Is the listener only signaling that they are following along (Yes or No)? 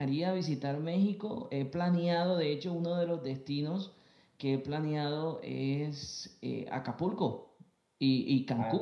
Yes